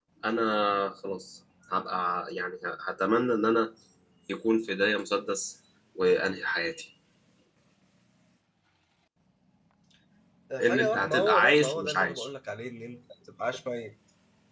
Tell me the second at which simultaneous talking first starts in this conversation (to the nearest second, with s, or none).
11 s